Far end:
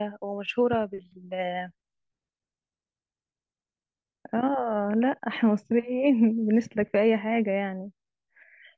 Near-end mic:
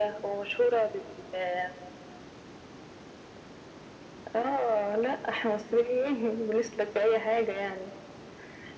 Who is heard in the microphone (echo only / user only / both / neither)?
echo only